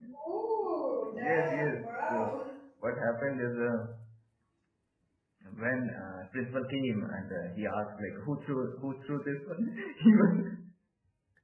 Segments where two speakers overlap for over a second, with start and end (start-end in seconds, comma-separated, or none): 1.1-2.4